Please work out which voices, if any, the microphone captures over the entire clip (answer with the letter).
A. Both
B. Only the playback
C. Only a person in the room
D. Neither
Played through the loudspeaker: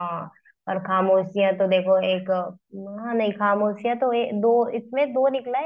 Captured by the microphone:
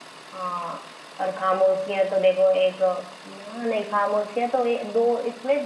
B